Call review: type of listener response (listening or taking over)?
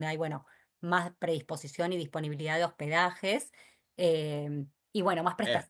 listening